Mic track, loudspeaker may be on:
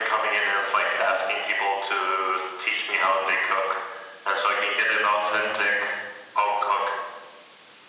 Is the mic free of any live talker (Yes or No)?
Yes